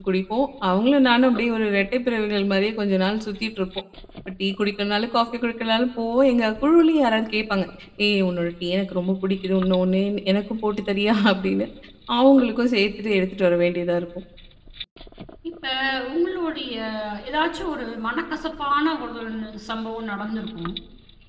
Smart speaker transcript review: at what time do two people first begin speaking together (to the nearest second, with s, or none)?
none